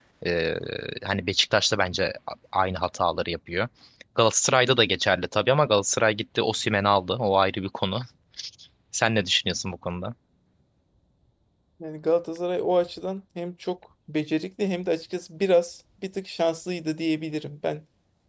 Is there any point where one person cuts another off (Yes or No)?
No